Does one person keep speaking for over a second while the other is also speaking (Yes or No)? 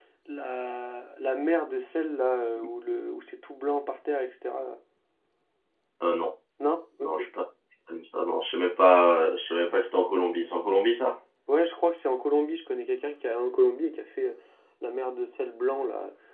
No